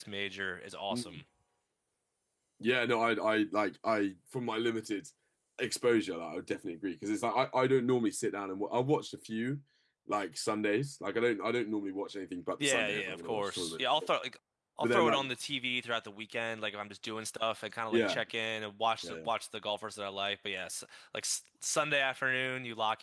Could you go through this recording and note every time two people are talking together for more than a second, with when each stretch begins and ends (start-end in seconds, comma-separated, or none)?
12.6-13.8